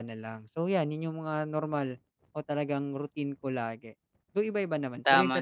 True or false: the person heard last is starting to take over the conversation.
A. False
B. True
B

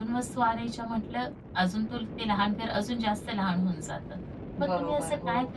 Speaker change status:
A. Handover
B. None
B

